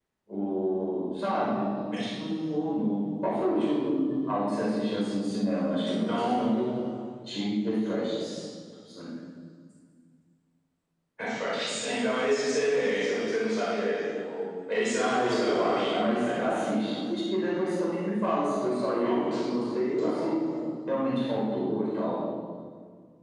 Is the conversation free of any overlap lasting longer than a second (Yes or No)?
No